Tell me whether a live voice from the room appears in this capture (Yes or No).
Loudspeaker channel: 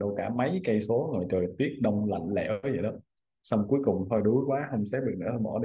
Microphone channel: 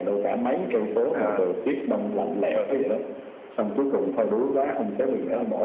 Yes